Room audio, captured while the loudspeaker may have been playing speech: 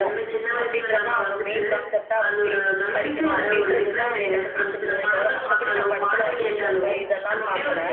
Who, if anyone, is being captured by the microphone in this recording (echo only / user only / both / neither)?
both